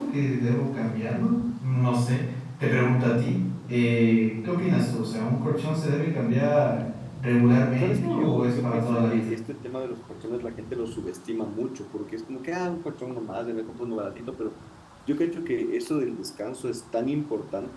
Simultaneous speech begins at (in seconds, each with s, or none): 7.8 s